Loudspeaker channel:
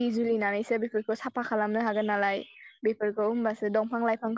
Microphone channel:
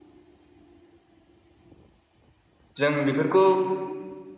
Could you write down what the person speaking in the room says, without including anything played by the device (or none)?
जों बेफोरखौ